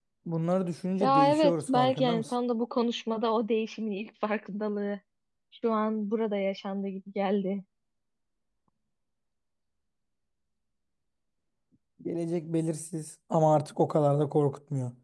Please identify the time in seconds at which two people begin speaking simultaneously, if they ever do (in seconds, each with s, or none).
1.0 s